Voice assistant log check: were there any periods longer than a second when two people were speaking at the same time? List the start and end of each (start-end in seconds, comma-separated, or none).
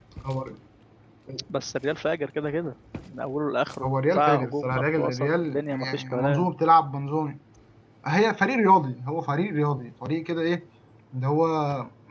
3.8-6.5